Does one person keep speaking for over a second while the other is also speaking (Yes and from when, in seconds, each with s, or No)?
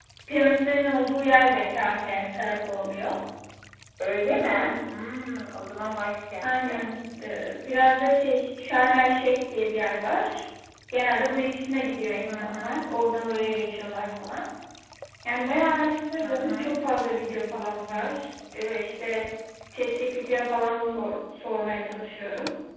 No